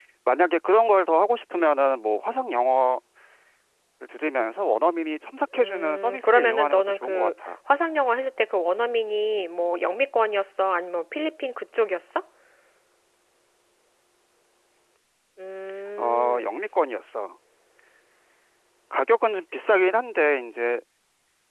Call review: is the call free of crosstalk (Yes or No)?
No